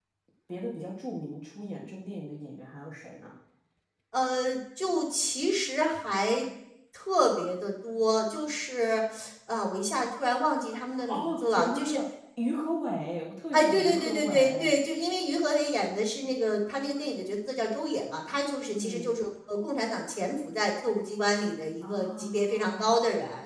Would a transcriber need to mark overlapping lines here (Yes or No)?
Yes